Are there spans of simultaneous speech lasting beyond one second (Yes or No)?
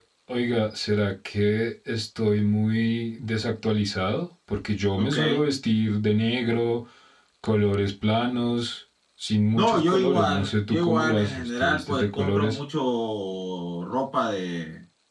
Yes